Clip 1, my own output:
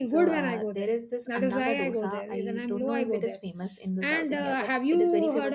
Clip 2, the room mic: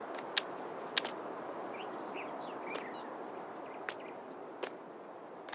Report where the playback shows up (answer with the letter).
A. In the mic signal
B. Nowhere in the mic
B